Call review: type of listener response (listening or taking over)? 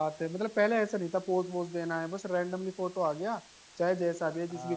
taking over